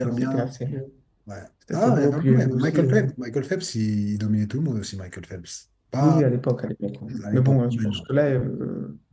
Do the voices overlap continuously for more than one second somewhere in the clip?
Yes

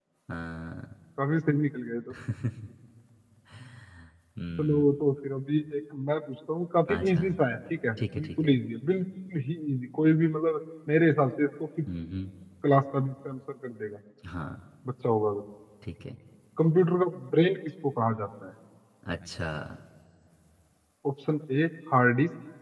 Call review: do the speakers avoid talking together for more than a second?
Yes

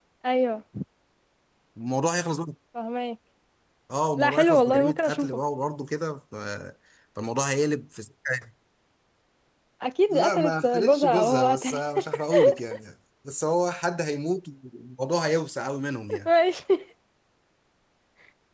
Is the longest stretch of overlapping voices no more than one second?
No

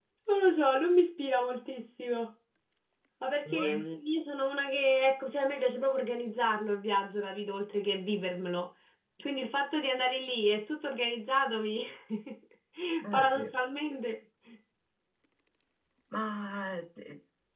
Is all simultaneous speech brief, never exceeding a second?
Yes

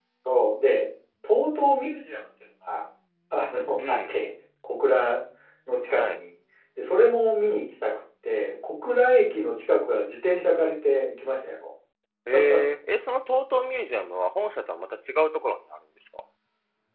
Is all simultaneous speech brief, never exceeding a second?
Yes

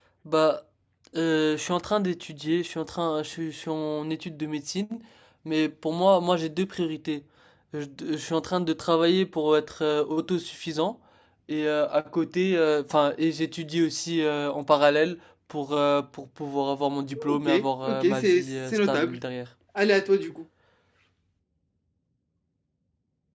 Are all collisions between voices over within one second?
No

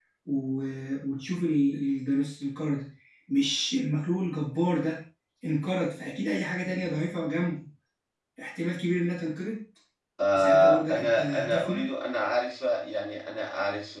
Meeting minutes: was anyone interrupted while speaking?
Yes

